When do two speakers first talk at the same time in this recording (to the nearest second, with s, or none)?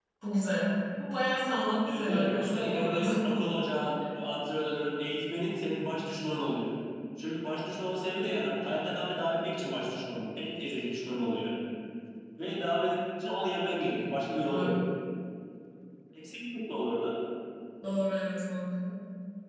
2 s